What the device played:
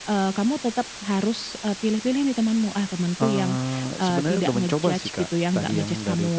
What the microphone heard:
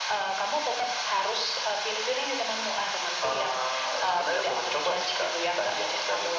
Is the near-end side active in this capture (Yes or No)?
No